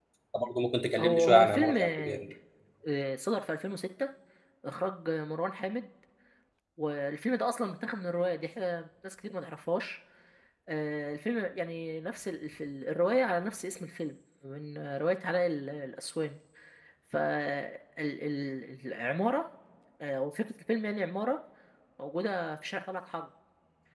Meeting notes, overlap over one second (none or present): present